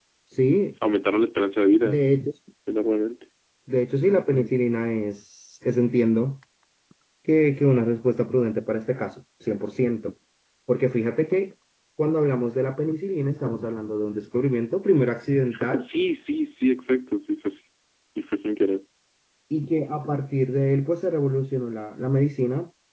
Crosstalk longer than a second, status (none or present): none